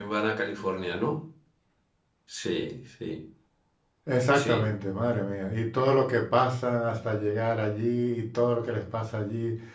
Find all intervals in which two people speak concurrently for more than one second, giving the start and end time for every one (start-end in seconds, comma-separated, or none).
none